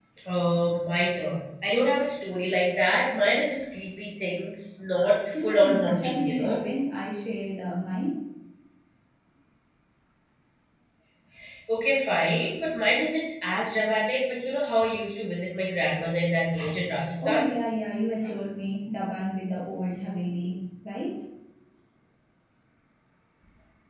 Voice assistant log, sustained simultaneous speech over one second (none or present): present